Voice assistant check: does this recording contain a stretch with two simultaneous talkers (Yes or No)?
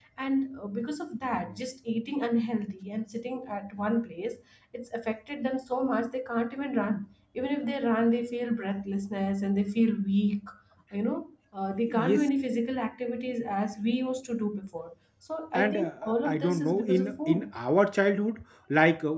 Yes